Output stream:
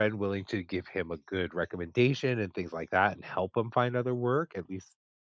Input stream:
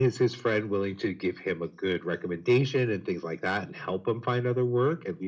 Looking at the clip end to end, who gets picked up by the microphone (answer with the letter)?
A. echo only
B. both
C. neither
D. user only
A